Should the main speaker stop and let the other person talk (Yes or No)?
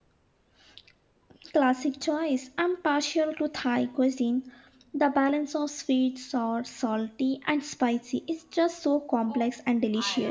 Yes